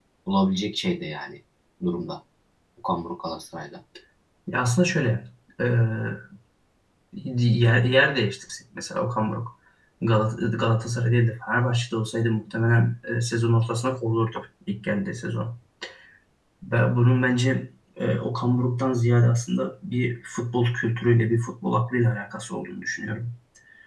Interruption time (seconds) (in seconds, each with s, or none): none